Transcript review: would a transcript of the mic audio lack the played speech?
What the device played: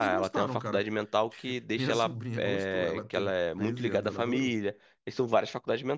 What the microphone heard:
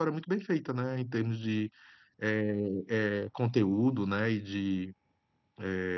Yes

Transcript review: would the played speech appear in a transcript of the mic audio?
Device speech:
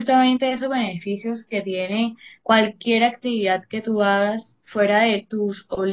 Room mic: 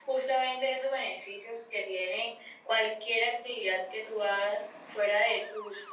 Yes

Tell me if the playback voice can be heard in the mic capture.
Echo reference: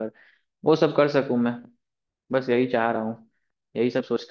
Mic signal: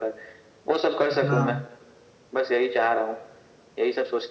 Yes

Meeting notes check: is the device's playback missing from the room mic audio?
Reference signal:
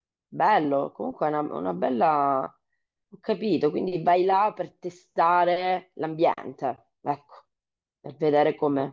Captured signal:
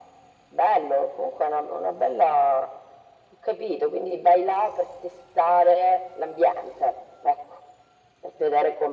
No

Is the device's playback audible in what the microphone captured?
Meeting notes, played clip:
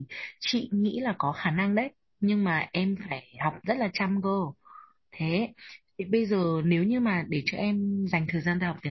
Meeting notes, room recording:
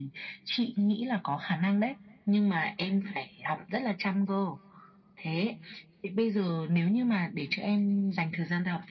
Yes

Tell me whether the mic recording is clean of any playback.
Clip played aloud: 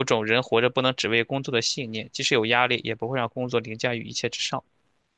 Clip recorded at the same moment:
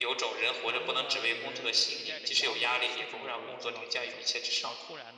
No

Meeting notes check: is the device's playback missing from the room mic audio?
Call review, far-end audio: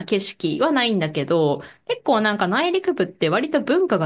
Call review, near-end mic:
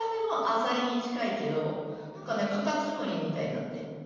Yes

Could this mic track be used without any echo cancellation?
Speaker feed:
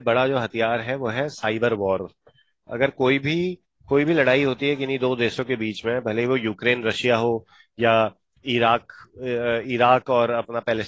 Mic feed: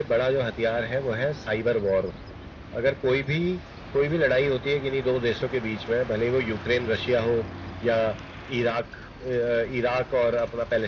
No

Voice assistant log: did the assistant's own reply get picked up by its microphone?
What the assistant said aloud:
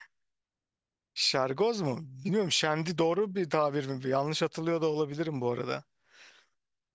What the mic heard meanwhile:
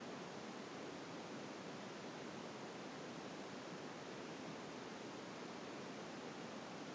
No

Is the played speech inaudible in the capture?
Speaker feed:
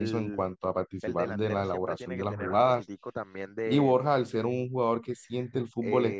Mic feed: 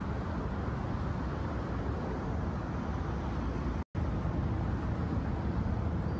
Yes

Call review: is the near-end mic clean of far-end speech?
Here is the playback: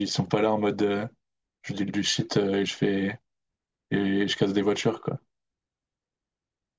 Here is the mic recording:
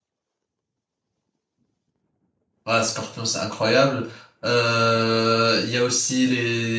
Yes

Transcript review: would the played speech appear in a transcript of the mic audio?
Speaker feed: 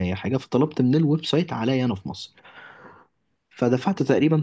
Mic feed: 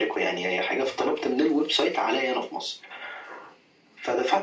Yes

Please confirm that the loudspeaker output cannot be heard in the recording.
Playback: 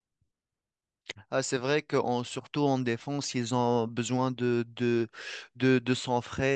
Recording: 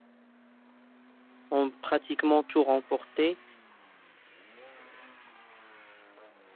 Yes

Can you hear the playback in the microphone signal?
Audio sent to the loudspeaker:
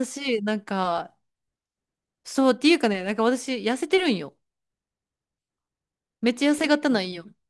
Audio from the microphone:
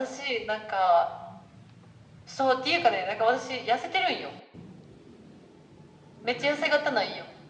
Yes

